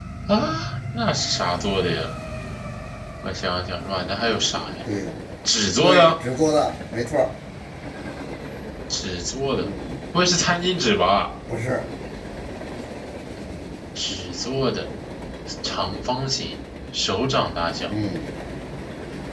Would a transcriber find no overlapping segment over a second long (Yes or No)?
Yes